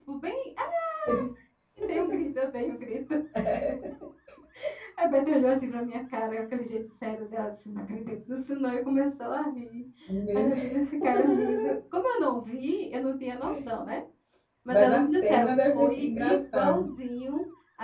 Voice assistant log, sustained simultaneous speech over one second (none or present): present